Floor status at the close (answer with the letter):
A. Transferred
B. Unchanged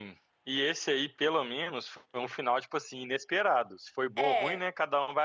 B